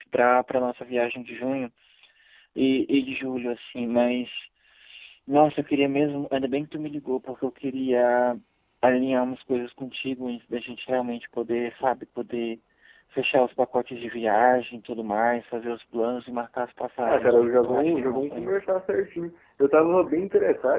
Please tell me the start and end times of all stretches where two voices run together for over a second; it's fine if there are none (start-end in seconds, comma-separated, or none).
17.0-18.6